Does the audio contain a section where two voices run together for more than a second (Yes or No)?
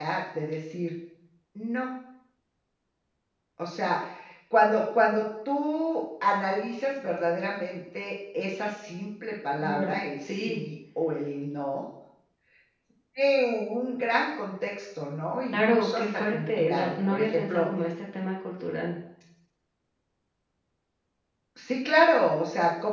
Yes